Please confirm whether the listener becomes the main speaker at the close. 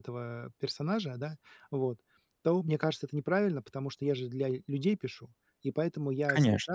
No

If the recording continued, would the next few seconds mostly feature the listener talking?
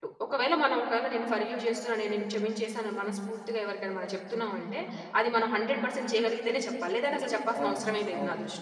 Yes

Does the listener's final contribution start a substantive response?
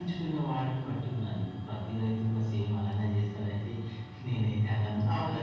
Yes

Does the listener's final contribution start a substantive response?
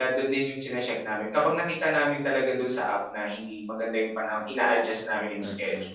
Yes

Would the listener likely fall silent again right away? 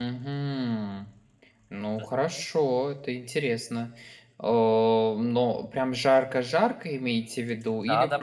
No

